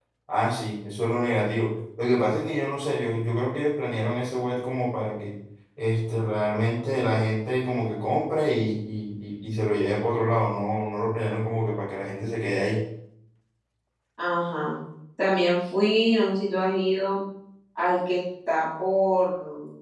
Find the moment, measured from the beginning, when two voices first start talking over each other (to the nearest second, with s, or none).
none